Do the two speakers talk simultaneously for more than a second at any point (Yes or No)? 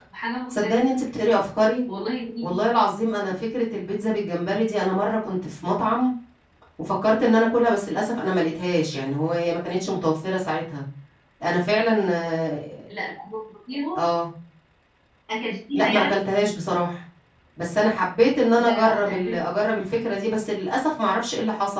Yes